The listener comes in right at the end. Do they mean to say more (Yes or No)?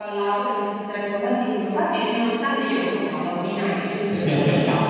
No